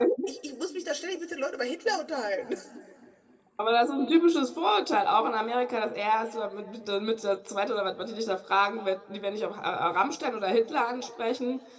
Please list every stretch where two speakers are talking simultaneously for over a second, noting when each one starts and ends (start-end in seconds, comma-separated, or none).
none